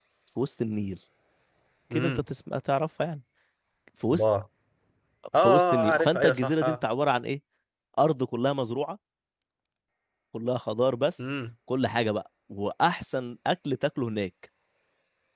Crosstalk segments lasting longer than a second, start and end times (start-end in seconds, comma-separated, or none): 5.4-6.8